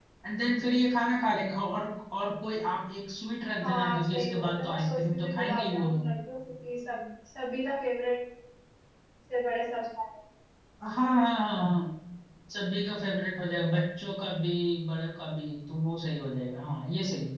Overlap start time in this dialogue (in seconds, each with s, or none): 3.6 s